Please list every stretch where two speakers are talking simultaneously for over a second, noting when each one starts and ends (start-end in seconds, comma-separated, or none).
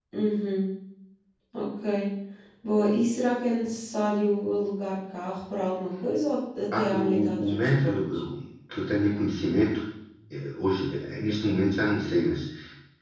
6.7-8.0